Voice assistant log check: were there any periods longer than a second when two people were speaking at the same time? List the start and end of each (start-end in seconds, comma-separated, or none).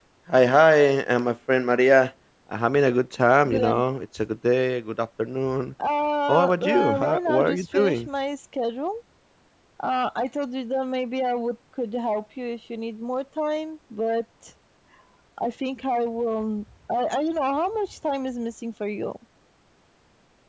6.3-8.1